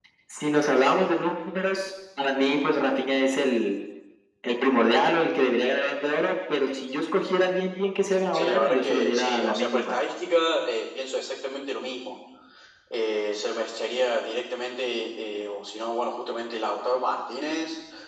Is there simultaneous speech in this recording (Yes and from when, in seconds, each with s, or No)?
Yes, from 8.3 s